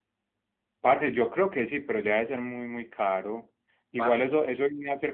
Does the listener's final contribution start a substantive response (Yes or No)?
No